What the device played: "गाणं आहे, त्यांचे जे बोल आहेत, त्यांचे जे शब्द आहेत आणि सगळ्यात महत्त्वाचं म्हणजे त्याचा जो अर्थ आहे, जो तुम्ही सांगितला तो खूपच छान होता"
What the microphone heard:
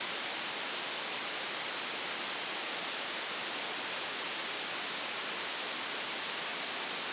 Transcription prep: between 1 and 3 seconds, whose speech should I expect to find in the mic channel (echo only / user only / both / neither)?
neither